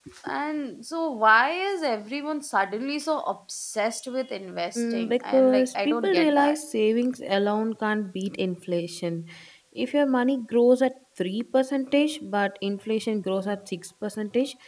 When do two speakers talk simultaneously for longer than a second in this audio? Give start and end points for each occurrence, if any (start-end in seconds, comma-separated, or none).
4.8-6.6